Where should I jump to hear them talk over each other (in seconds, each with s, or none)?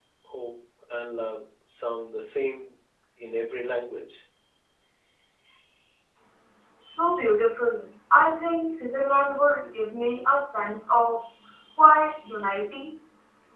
none